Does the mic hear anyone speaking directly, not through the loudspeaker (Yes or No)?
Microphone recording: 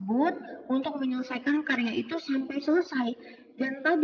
No